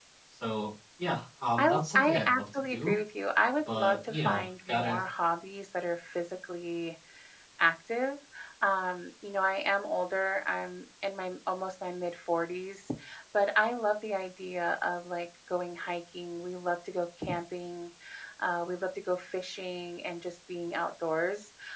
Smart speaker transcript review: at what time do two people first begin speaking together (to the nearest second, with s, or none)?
2 s